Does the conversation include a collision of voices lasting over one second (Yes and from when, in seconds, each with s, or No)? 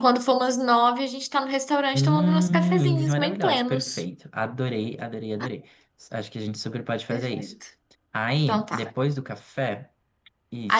Yes, from 1.9 s